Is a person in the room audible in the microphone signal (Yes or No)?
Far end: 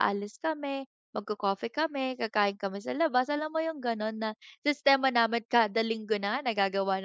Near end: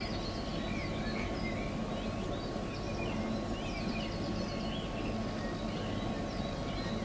No